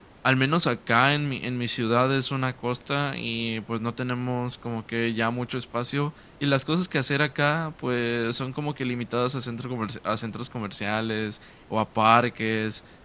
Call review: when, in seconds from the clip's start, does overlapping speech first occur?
none

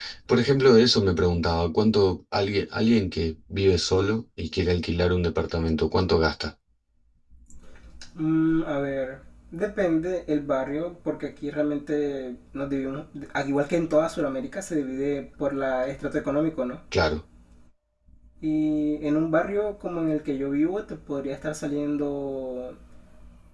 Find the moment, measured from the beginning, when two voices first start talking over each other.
none

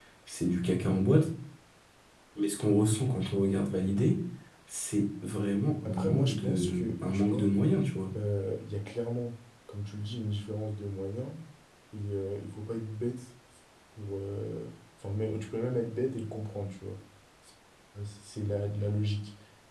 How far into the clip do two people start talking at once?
5.8 s

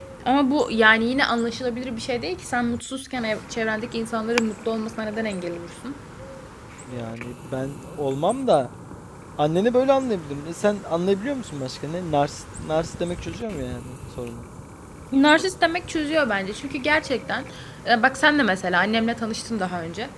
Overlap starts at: none

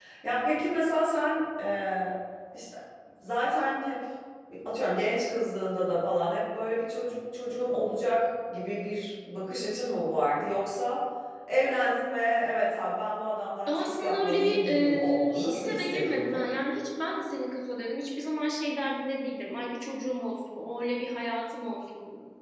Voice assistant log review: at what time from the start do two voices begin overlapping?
13.7 s

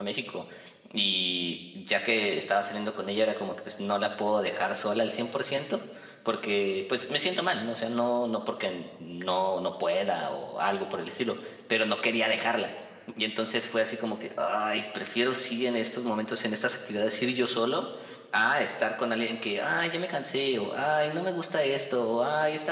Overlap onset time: none

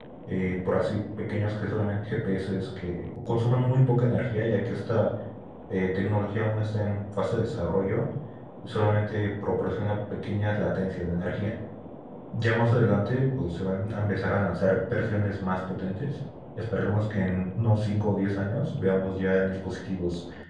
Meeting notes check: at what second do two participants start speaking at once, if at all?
none

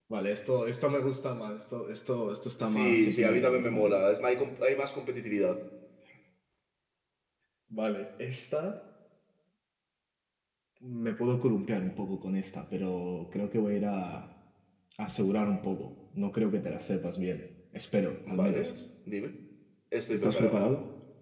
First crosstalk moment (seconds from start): 2.6 s

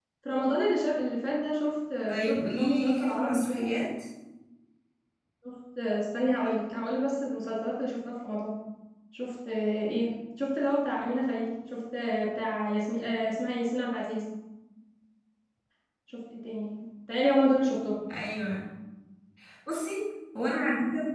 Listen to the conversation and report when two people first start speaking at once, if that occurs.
2.1 s

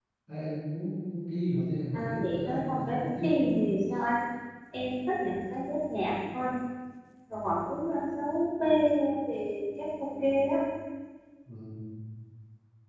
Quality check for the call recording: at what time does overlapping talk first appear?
1.9 s

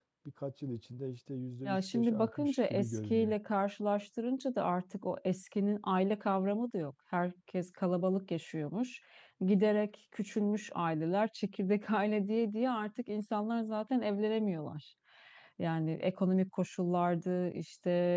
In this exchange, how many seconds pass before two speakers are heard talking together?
1.6 s

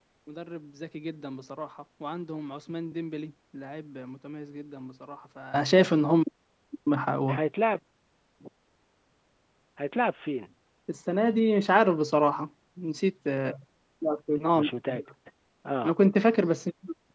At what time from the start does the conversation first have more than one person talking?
none

